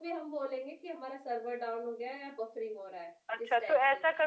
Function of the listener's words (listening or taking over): taking over